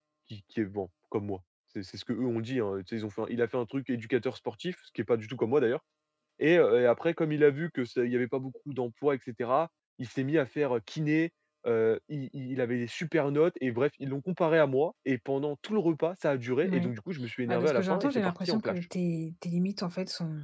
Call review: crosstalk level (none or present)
present